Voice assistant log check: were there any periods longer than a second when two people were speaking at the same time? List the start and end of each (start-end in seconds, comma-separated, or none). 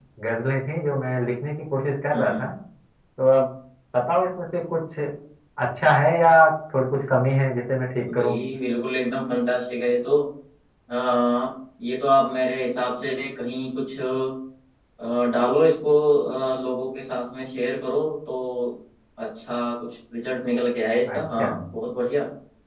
none